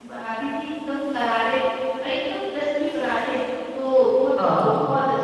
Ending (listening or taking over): listening